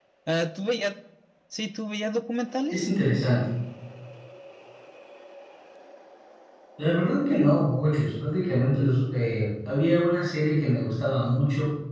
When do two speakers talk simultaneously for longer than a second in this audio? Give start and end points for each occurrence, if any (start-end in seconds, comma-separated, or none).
none